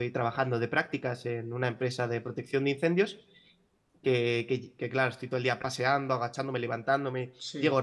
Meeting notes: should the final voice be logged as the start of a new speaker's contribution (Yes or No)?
No